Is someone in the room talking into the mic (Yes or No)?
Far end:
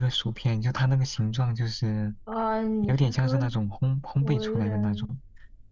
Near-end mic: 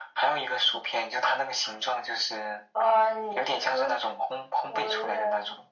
No